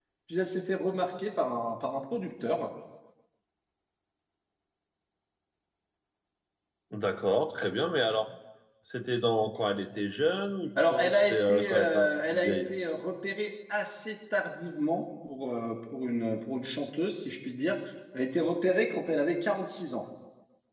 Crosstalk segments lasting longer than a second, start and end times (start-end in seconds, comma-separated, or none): 10.9-12.6